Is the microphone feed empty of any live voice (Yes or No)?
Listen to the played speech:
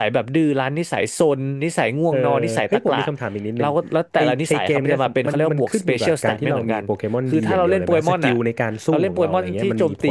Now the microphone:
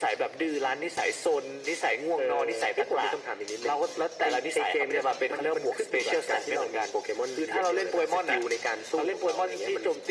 Yes